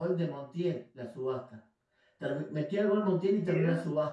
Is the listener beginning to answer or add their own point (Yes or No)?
No